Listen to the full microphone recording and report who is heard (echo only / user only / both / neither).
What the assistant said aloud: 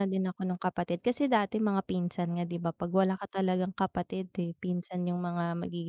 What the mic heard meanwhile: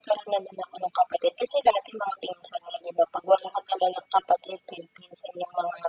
echo only